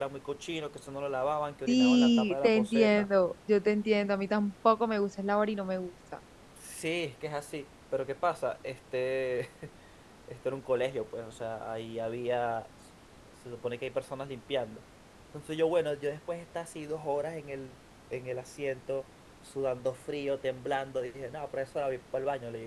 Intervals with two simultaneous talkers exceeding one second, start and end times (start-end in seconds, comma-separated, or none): 1.7-3.1